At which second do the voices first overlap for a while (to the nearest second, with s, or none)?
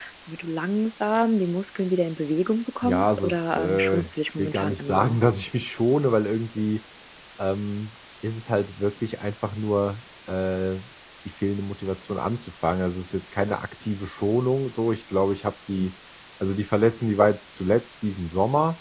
3 s